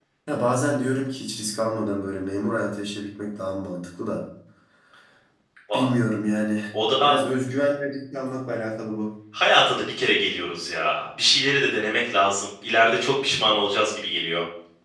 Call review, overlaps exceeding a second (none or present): none